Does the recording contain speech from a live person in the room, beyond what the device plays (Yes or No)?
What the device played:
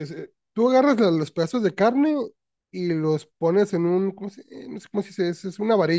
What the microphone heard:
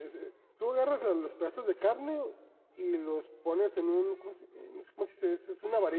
No